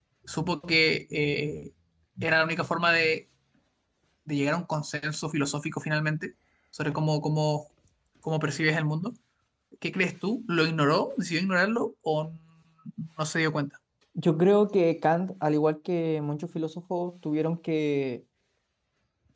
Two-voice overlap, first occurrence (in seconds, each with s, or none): none